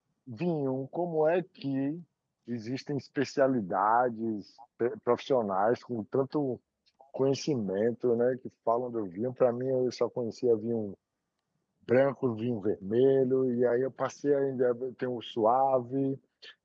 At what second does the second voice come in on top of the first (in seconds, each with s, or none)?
none